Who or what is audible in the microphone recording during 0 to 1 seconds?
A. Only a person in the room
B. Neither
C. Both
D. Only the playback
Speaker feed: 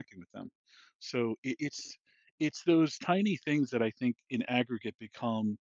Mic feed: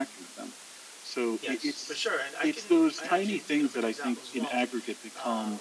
D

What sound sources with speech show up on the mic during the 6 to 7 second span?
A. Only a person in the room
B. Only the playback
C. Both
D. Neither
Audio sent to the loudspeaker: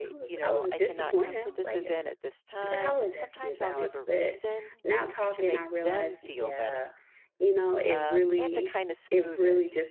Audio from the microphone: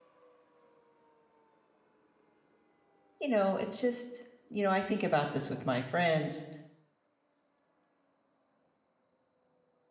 A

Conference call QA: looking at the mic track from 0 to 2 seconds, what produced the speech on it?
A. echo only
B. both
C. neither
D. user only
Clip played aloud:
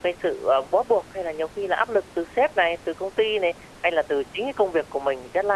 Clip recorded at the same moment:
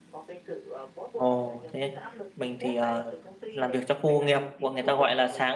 B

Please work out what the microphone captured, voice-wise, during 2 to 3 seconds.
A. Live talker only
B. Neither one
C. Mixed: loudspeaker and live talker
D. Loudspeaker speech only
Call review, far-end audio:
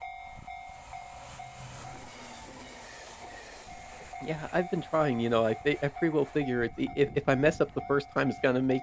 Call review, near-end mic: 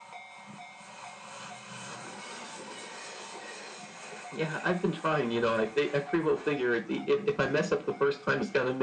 B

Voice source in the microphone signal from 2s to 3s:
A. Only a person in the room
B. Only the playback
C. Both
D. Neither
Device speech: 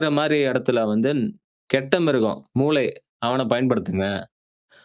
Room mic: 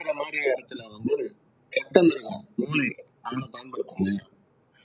B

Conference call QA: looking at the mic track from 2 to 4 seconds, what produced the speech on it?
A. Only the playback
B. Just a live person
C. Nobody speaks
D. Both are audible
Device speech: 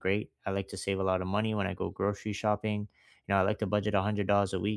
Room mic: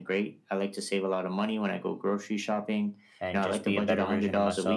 D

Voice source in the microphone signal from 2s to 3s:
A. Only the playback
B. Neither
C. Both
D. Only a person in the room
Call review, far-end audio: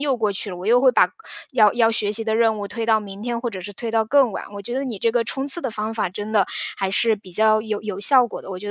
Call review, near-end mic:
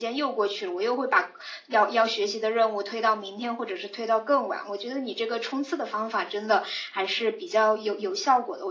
A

